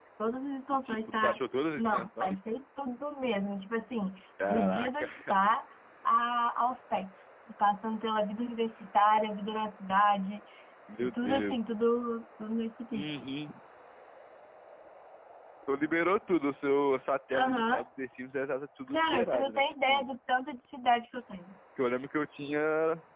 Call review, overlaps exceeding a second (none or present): present